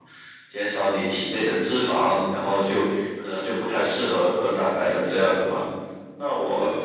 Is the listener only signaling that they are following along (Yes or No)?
Yes